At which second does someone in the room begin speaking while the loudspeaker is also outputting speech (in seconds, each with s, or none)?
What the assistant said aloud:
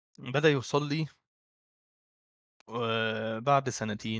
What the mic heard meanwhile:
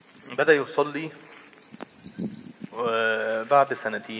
none